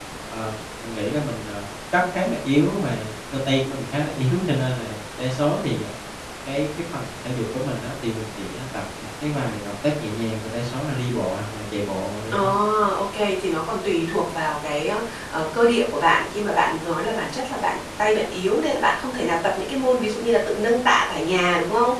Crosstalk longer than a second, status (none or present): none